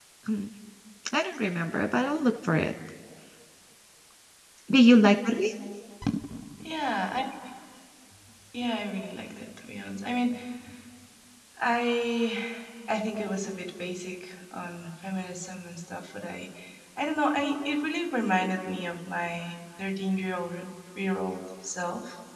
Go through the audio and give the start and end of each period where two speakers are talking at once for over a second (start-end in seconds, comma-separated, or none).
none